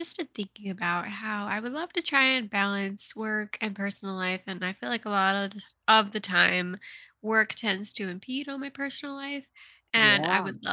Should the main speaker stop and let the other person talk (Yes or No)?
No